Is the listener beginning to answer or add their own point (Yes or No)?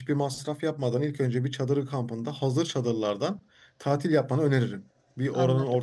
No